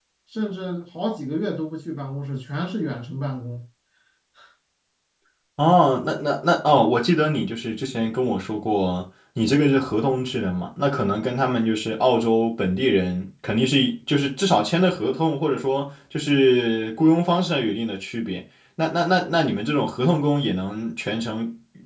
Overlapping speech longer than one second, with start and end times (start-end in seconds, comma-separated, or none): none